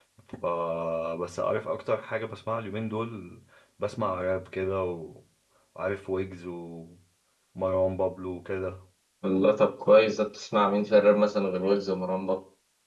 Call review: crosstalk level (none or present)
none